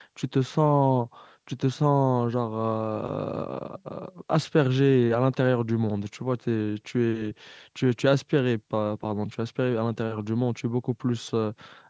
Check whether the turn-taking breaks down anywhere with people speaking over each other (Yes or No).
No